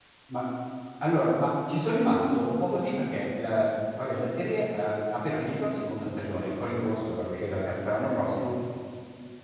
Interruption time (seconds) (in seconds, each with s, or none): none